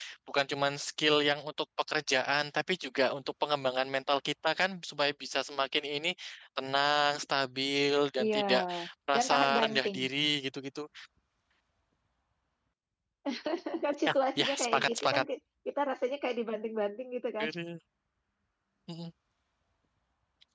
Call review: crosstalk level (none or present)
present